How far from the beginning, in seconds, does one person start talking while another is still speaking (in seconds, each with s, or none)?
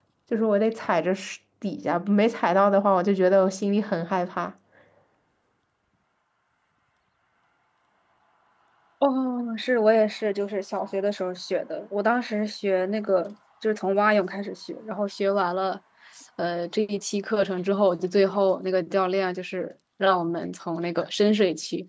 none